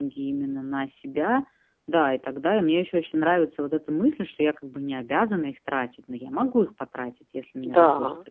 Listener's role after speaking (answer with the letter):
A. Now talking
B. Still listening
A